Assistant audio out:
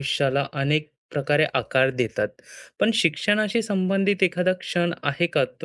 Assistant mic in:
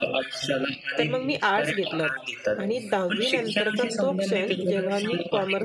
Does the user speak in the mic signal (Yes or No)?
Yes